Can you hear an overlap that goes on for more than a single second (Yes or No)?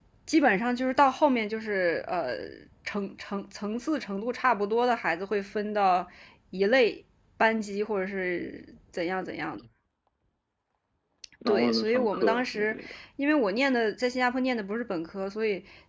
Yes